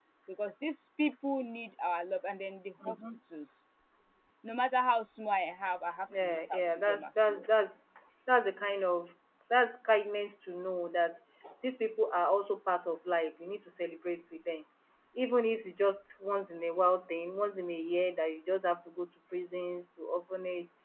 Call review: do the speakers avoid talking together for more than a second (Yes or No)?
No